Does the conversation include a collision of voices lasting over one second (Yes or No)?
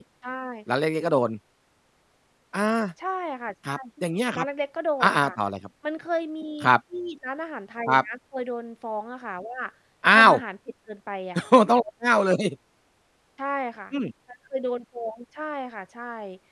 No